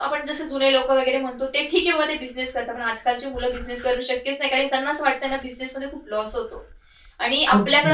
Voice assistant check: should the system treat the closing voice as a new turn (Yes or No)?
No